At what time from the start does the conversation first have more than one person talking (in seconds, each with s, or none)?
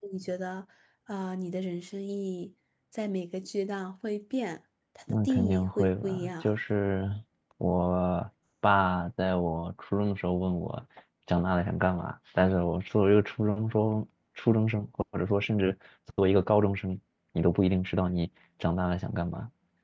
5.1 s